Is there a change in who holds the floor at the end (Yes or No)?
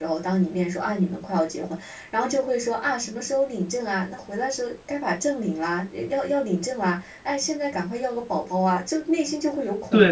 Yes